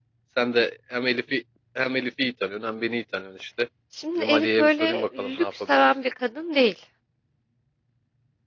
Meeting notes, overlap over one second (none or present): present